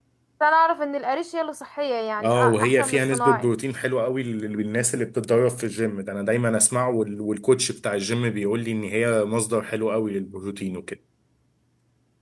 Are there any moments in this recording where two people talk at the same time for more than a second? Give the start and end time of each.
2.2-3.5

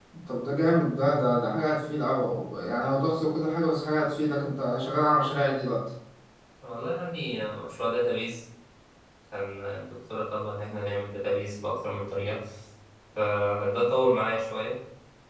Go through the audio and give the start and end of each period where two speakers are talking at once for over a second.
none

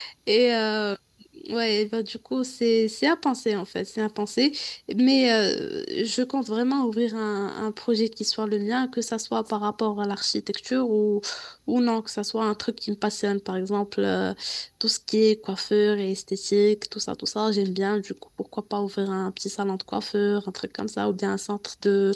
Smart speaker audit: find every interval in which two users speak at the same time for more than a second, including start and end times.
none

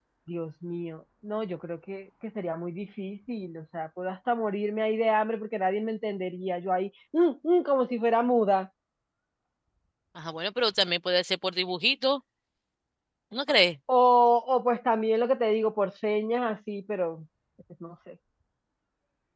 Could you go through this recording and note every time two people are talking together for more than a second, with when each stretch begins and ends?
none

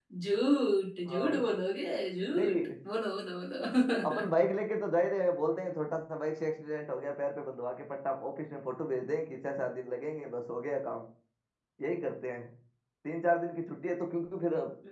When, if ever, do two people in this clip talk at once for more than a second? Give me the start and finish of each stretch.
none

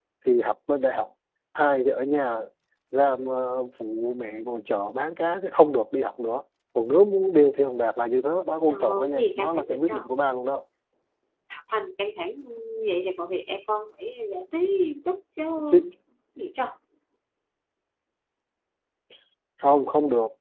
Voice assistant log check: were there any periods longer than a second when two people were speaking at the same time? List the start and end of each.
8.7-10.0

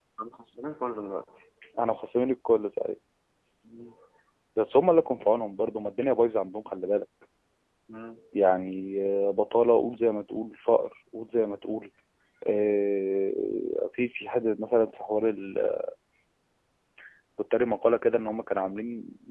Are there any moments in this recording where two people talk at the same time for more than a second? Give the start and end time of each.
none

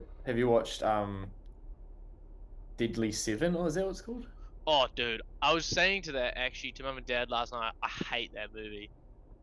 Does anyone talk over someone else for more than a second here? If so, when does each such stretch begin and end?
none

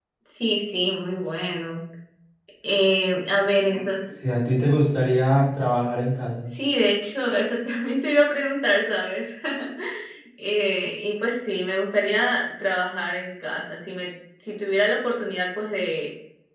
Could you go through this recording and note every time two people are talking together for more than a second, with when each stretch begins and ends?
none

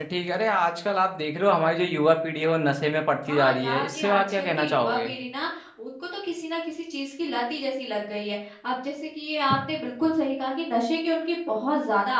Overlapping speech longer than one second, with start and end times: 3.3-5.1

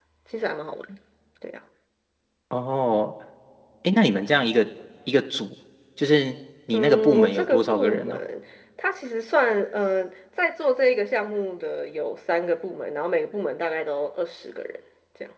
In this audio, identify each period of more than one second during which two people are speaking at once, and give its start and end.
6.7-8.2

